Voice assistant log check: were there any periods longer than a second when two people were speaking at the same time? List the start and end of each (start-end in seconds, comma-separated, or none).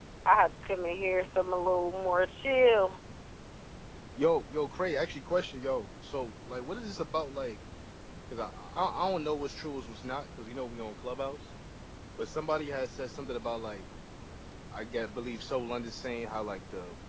none